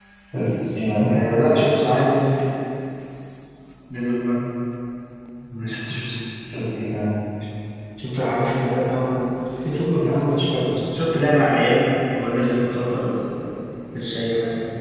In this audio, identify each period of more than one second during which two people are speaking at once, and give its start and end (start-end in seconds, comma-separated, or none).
none